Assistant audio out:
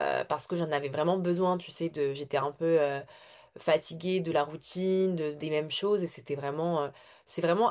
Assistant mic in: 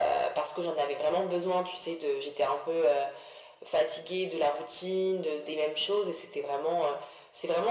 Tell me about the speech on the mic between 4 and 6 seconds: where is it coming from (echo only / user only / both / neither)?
echo only